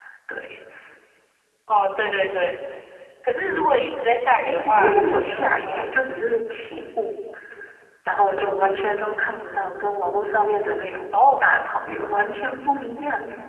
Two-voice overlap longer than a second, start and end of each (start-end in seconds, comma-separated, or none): 4.4-6.1